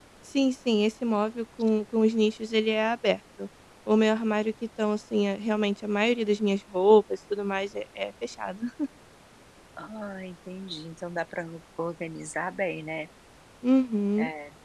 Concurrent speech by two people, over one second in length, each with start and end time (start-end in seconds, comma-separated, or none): none